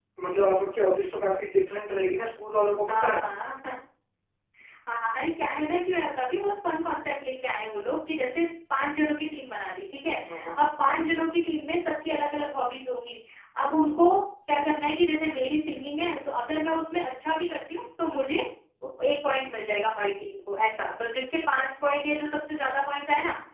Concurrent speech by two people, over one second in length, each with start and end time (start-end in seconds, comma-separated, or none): none